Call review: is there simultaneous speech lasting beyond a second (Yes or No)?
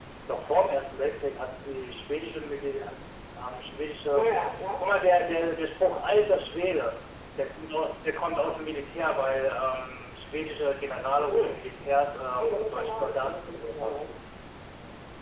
Yes